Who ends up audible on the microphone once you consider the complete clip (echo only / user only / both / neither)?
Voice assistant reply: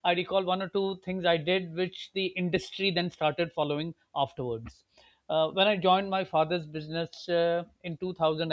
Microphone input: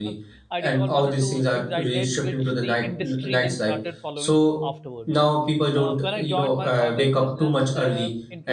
both